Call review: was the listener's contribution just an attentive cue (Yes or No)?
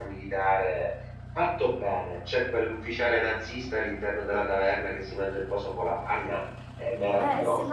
No